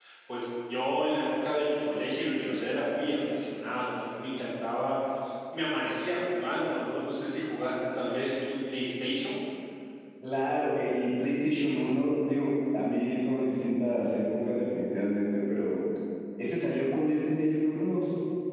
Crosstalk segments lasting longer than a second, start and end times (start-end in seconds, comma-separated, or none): none